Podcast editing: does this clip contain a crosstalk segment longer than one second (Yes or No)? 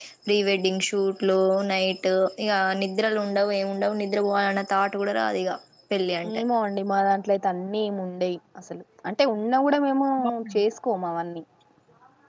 No